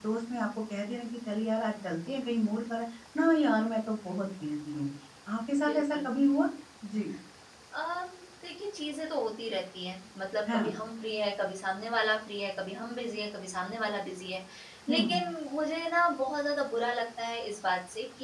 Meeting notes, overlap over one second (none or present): none